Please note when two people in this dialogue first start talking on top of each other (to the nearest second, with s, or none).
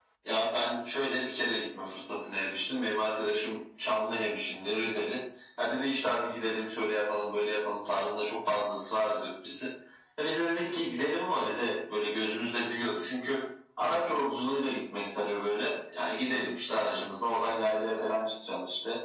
none